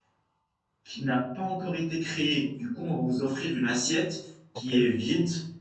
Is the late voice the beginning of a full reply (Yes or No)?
No